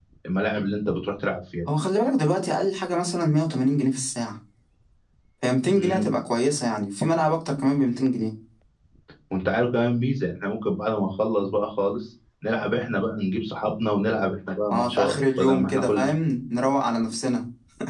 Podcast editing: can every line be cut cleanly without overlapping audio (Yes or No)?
No